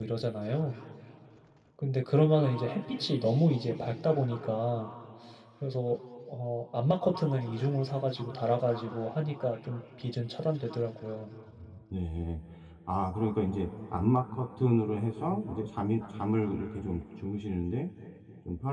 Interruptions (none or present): none